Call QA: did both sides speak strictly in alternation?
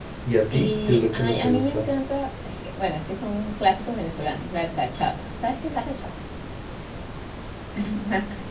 No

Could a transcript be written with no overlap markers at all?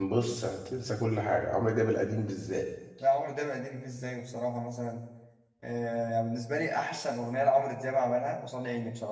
Yes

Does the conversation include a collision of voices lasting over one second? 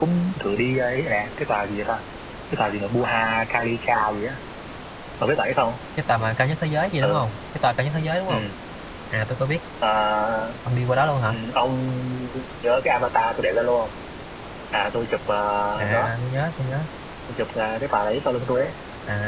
No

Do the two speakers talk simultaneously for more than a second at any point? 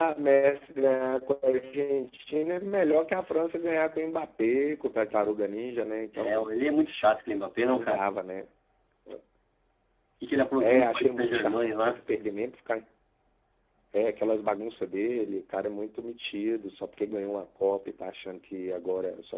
Yes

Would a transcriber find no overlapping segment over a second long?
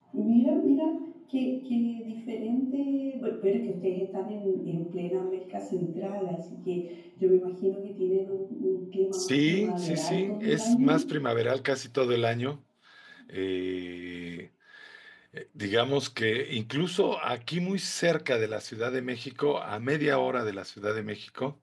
No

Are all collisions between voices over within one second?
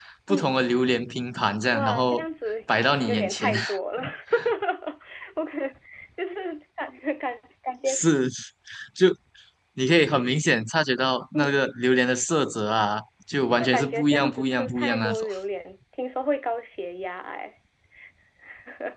No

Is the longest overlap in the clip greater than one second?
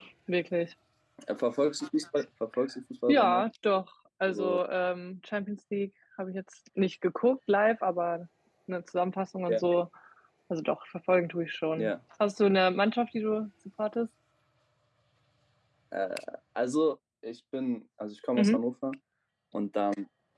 No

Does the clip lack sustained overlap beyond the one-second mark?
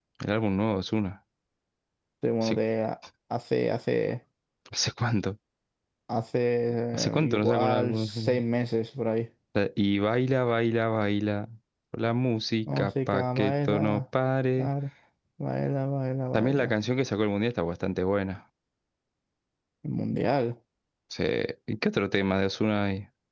No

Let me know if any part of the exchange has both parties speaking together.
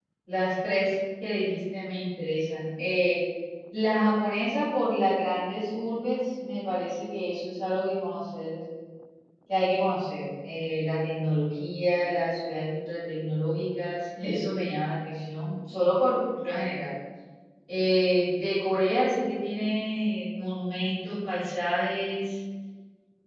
No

